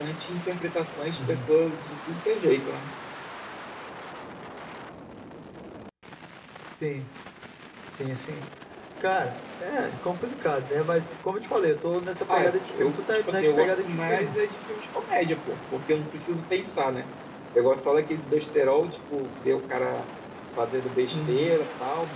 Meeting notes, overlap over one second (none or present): present